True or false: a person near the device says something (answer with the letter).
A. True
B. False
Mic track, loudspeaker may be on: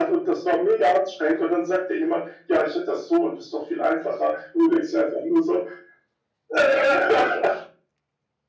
B